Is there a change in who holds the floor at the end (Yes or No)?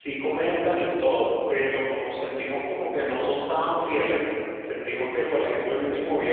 No